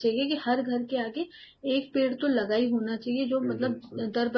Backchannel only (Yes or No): Yes